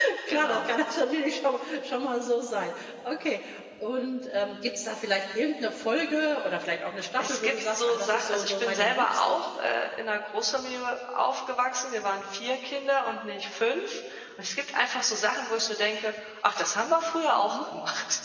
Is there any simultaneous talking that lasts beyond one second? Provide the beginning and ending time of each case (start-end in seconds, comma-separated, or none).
7.2-9.4